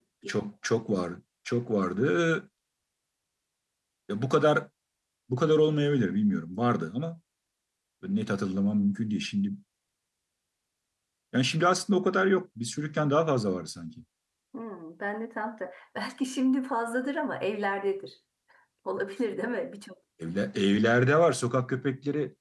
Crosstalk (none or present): none